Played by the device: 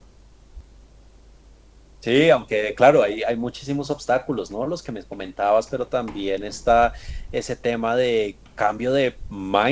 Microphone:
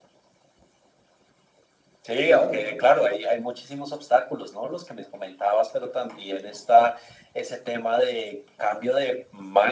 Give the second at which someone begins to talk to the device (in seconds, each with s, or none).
2.2 s